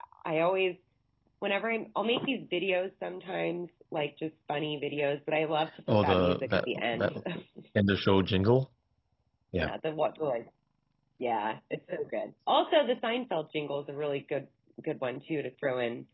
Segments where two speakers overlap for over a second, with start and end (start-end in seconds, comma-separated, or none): 5.9-7.1